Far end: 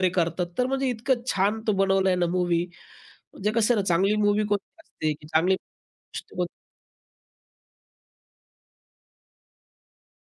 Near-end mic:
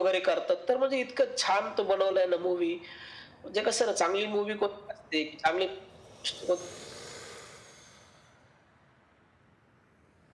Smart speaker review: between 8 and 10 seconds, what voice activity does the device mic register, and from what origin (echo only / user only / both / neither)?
neither